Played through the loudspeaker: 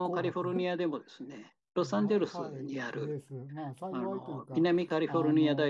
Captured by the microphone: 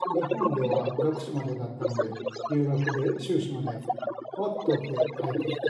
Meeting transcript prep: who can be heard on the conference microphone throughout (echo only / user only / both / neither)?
both